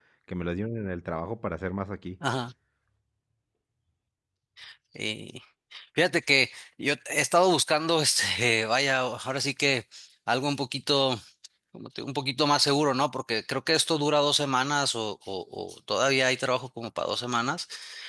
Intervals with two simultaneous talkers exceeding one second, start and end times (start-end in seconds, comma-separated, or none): none